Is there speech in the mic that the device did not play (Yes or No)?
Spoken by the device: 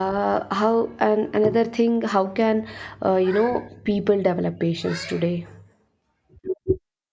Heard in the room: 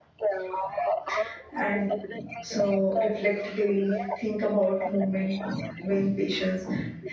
Yes